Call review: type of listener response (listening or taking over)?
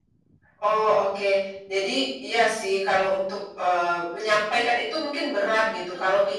listening